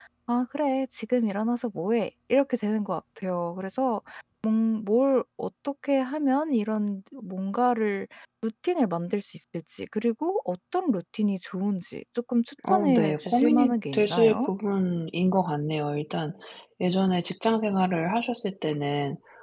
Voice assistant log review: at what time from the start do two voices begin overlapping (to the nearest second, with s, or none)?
13 s